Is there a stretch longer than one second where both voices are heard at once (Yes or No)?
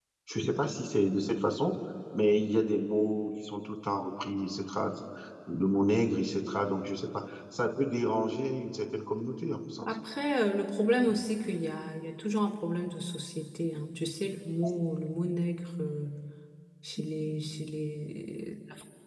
No